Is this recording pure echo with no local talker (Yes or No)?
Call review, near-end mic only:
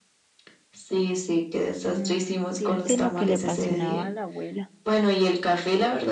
No